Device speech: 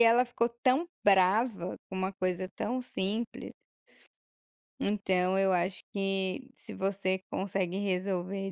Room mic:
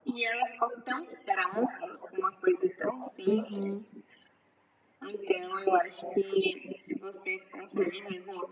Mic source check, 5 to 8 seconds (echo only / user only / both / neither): echo only